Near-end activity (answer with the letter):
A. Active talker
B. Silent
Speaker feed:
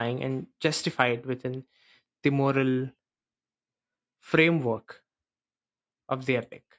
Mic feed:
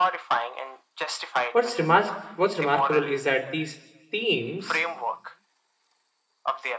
A